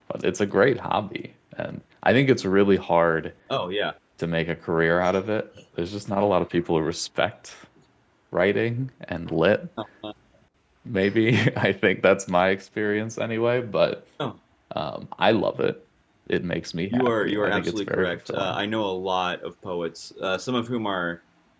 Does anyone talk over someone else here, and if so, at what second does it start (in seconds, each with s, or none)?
16.9 s